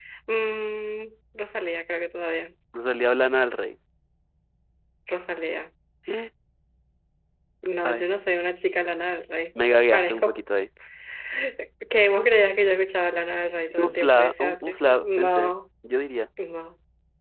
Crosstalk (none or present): present